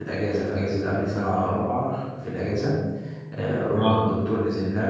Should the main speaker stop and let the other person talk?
No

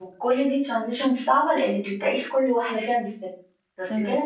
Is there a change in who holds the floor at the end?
No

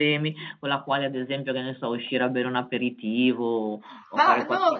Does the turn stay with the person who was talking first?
No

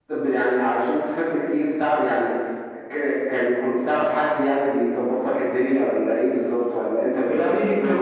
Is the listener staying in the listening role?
No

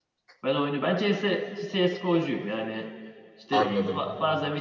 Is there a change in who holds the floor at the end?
No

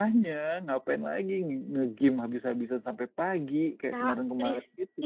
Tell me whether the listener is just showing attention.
No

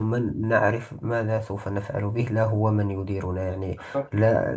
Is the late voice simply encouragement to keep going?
Yes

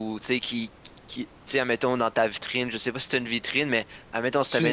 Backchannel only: Yes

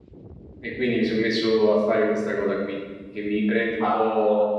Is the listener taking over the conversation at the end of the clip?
No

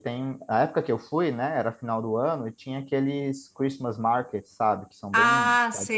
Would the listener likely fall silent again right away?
No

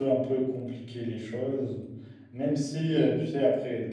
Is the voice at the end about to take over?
No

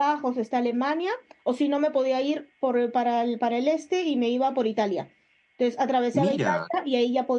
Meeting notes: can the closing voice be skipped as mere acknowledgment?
Yes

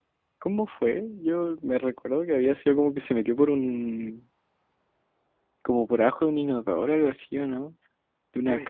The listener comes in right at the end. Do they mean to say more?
Yes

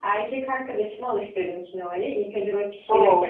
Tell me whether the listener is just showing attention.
Yes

